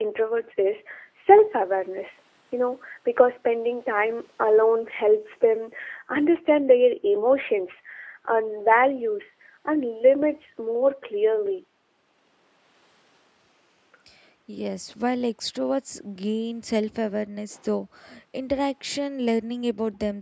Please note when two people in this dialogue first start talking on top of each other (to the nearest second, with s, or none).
none